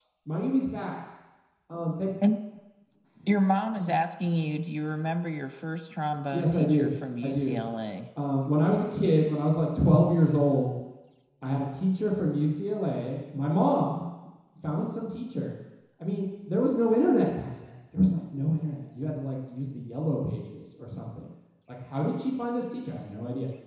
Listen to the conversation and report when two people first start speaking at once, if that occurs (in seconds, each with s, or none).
6.3 s